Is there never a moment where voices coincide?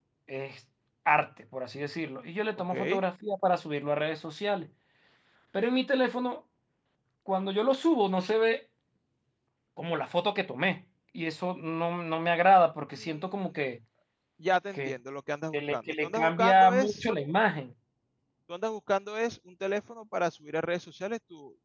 No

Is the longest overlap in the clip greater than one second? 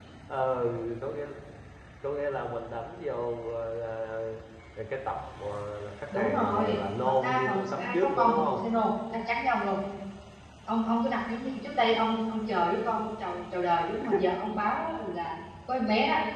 Yes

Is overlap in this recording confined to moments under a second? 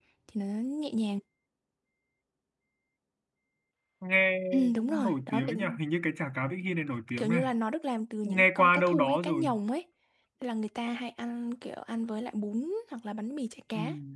No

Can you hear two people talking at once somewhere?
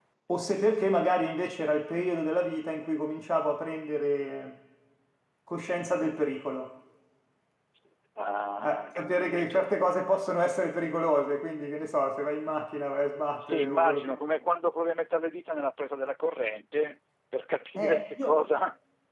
Yes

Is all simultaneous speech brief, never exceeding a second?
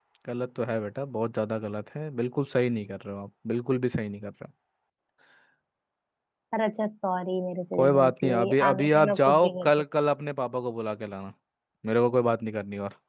No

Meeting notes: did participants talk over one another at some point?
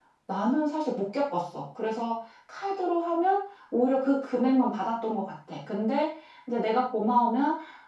No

